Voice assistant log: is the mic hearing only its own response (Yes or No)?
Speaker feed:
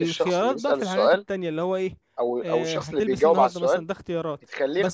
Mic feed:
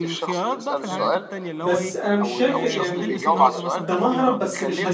No